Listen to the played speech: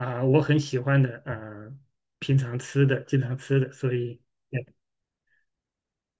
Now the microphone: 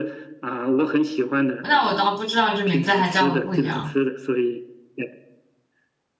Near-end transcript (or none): 那我倒不知道这名字还叫的不一样